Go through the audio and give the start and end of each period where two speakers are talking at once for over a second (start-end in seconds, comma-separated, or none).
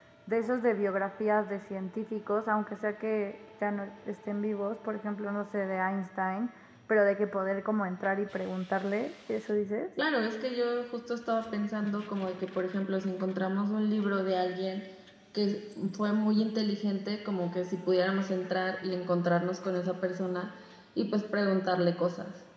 none